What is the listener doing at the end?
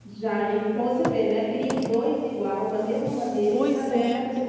taking over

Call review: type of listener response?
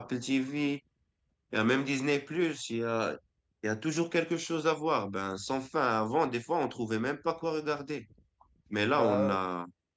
listening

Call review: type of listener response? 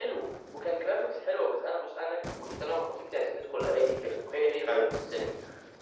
listening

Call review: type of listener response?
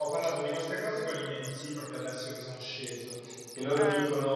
listening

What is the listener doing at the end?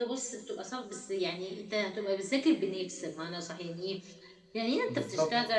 listening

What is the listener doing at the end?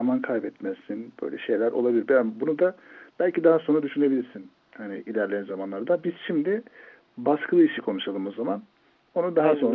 taking over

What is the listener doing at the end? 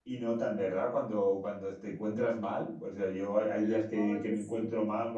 listening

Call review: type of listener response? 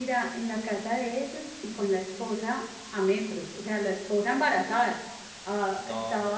listening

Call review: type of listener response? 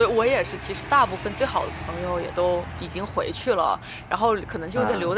listening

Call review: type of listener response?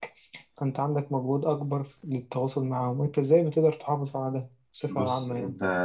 taking over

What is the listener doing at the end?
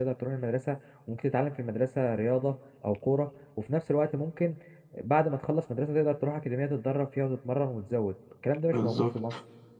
taking over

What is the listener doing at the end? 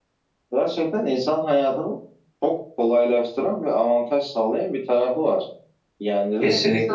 listening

